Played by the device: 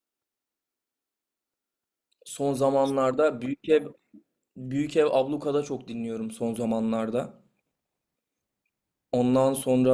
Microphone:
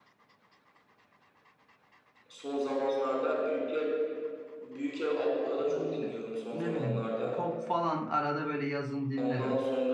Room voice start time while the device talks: 6 s

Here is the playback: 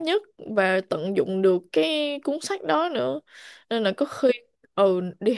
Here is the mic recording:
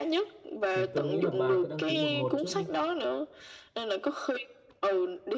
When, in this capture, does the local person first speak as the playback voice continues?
1 s

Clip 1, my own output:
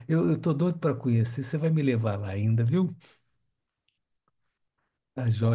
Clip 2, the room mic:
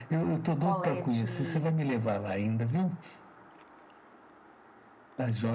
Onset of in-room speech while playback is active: 0 s

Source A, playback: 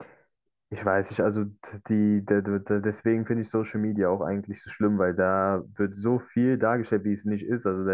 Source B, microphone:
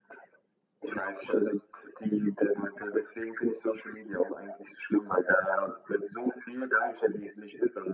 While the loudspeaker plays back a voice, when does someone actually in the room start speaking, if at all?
none

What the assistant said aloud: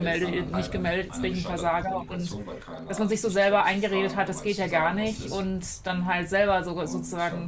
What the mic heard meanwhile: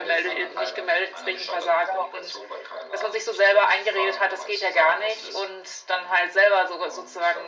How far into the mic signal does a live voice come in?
none

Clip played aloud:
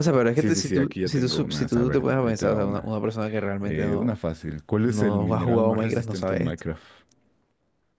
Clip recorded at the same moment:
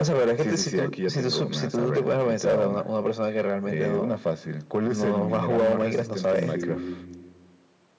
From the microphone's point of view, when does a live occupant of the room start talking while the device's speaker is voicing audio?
6 s

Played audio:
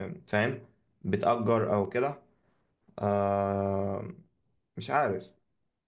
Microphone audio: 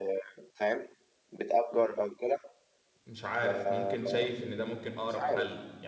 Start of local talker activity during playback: 3 s

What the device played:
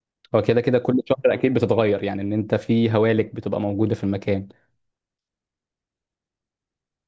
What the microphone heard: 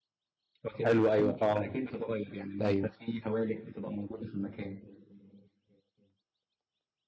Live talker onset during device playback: 1 s

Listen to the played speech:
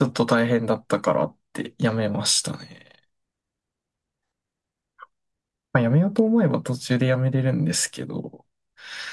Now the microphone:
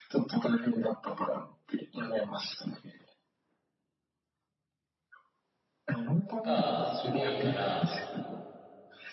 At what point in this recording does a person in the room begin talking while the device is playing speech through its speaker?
6 s

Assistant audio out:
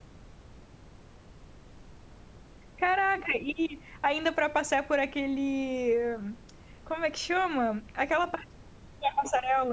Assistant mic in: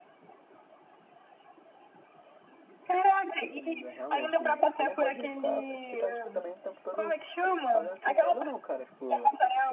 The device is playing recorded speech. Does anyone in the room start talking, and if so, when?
4 s

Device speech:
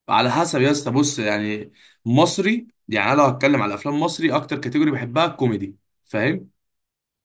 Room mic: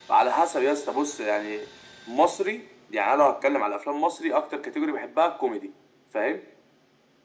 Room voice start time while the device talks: none

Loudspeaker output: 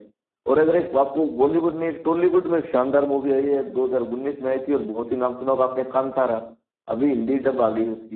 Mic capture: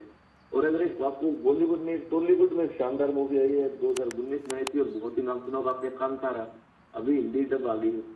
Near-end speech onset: none

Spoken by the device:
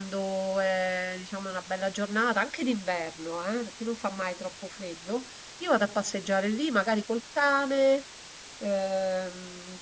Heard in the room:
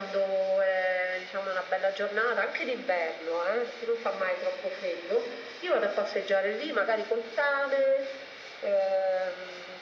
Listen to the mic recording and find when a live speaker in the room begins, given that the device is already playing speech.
none

